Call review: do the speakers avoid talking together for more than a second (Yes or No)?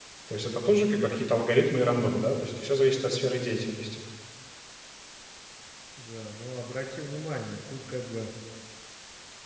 Yes